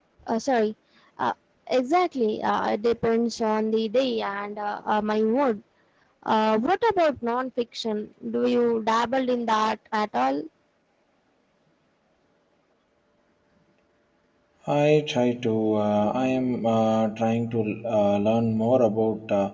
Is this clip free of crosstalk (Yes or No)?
Yes